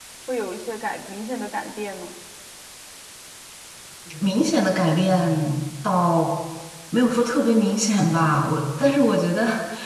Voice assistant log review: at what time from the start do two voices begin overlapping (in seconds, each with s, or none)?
none